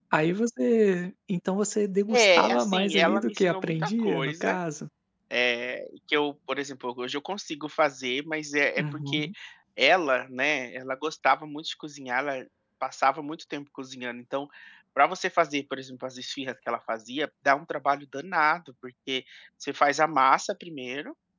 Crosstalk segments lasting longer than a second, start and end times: 2.1-4.6

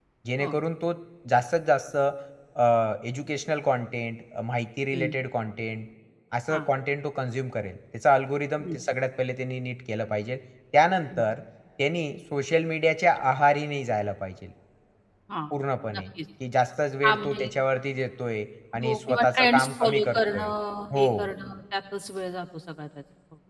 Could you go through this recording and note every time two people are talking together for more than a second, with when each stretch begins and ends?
18.8-20.5

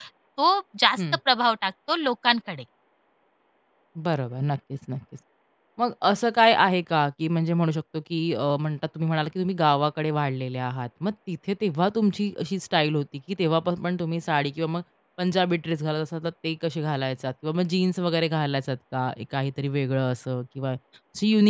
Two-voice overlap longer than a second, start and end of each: none

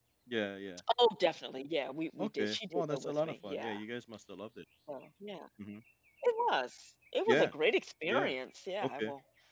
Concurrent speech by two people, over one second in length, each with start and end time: 2.2-3.8

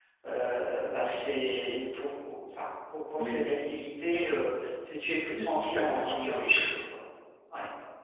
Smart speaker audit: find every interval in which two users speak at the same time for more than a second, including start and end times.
5.3-6.6

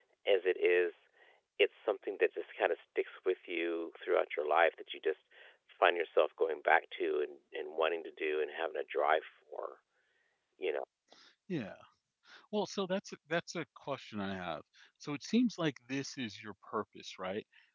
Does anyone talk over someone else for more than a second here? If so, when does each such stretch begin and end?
none

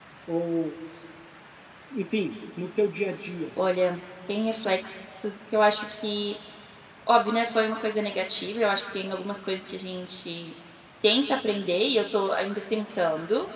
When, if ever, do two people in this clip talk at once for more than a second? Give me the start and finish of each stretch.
none

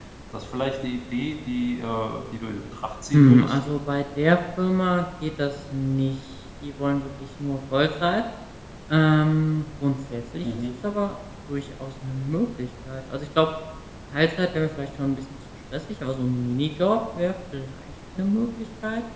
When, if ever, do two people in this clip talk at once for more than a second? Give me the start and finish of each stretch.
none

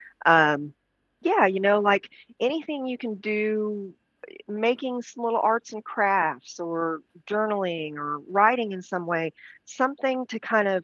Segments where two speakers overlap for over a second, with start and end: none

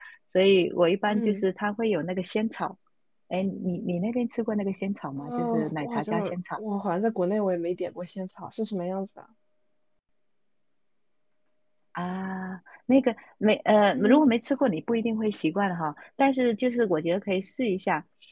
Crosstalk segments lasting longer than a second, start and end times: 5.2-6.6

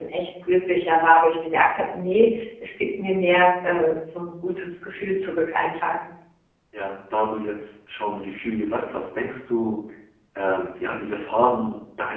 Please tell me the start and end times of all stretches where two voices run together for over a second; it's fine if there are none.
none

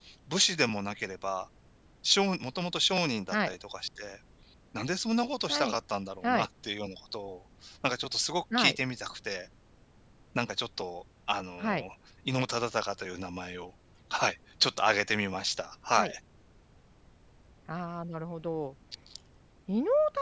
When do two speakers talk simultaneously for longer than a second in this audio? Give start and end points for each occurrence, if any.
none

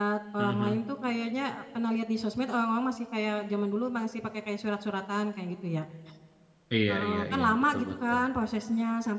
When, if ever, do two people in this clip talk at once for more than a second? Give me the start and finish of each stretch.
6.9-8.2

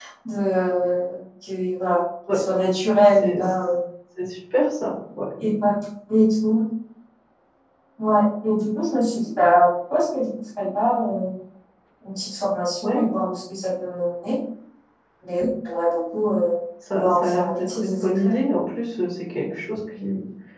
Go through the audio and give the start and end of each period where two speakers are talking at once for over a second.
16.9-18.4

